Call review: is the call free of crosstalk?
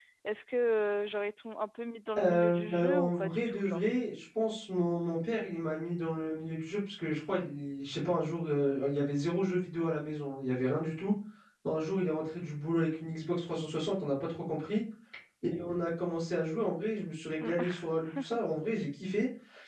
No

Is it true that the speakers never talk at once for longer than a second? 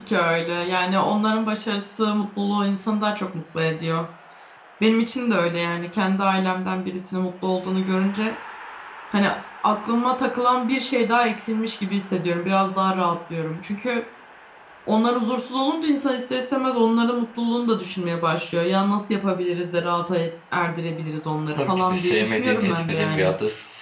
No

